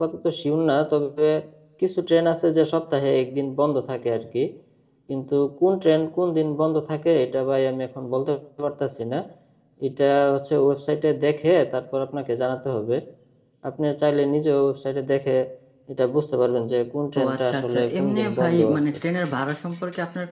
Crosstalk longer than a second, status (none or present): present